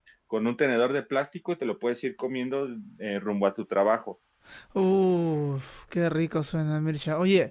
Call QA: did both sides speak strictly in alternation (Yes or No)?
Yes